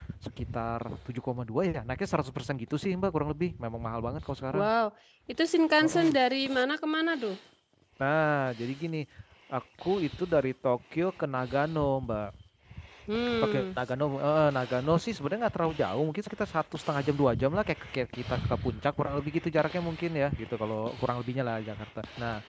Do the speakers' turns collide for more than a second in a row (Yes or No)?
No